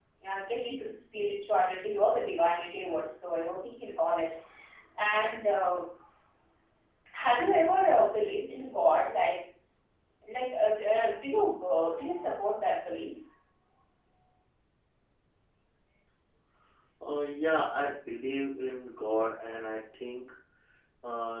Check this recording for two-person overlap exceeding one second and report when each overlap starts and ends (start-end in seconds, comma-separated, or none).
none